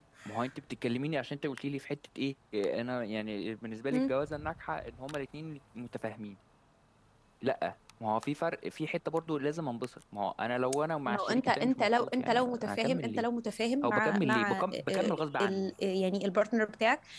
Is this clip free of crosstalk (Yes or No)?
No